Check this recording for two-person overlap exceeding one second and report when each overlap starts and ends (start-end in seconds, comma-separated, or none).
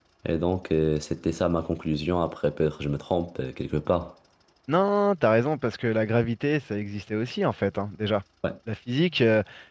none